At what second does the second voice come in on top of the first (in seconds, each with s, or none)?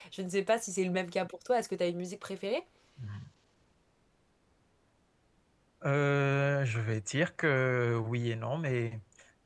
none